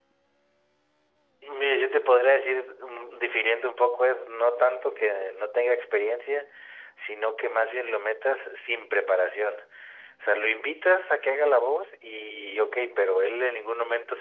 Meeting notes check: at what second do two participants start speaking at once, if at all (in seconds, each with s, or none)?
none